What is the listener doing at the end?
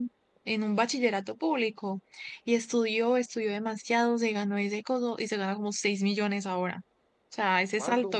listening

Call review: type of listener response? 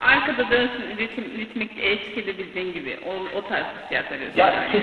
taking over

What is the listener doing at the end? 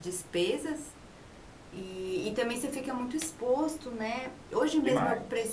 listening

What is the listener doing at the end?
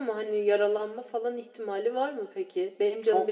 taking over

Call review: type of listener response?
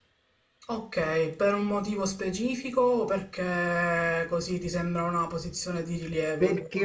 taking over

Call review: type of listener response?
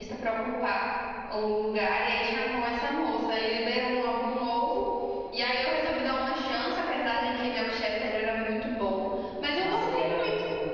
taking over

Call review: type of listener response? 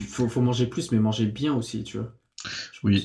taking over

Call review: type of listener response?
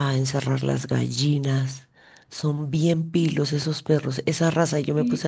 listening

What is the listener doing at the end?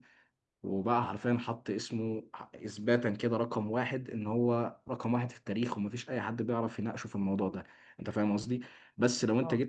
listening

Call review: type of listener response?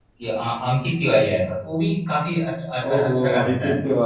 taking over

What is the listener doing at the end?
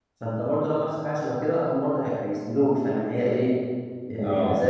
taking over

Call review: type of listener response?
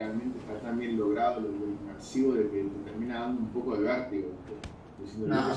listening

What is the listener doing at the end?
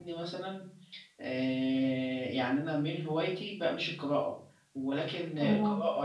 listening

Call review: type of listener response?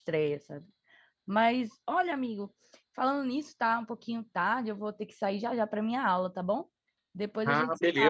taking over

